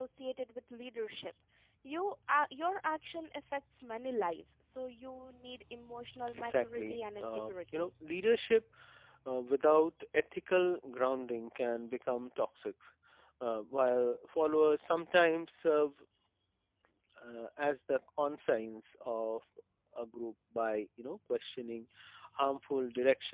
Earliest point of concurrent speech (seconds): 6.4 s

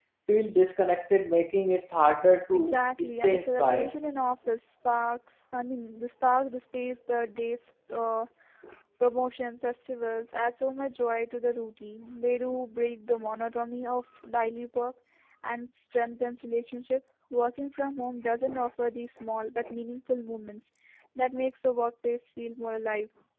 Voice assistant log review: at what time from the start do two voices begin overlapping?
2.5 s

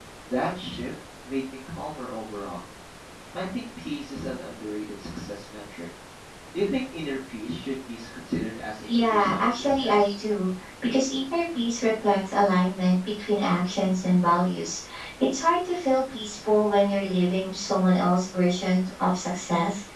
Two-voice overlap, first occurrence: 8.9 s

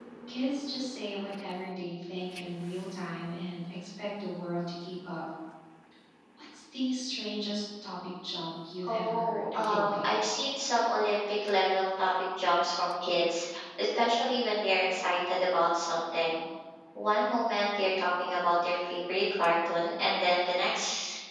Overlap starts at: 8.8 s

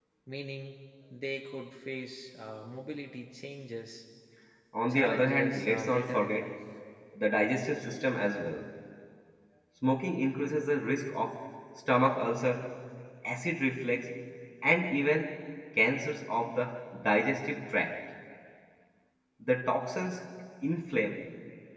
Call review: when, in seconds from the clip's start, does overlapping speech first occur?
4.9 s

